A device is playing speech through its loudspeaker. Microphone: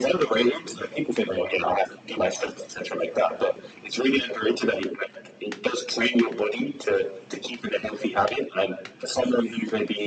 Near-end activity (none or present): none